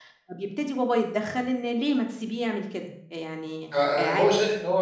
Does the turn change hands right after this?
Yes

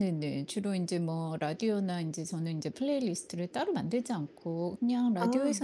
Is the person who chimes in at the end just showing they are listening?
Yes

